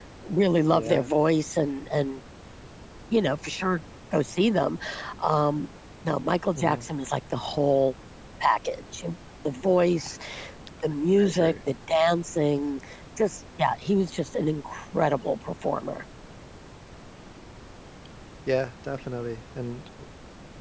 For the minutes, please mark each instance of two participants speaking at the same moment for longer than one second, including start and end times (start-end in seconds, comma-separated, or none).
none